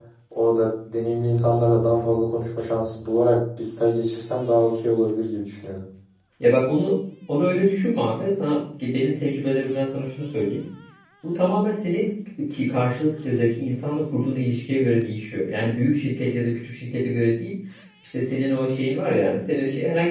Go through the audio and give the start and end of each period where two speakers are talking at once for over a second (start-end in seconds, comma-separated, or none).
none